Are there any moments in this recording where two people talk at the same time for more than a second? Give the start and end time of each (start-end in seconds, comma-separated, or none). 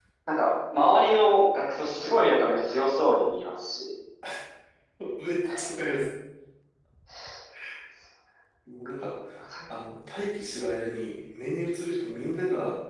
none